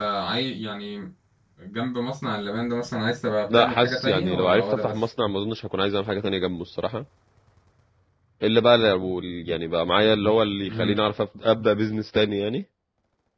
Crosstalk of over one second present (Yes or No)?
Yes